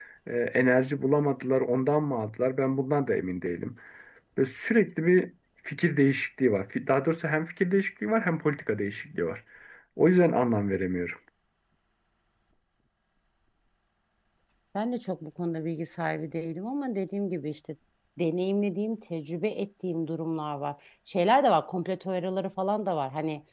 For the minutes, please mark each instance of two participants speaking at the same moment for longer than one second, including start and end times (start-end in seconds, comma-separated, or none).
none